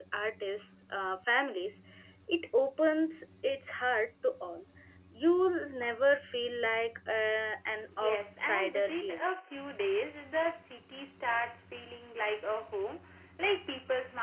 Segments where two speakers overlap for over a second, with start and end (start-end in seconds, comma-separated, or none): 8.0-9.2